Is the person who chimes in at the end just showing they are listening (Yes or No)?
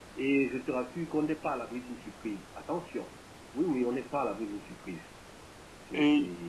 No